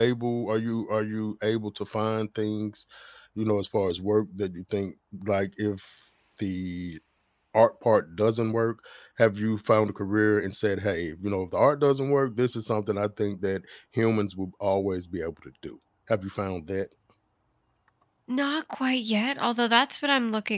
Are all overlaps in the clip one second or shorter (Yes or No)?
Yes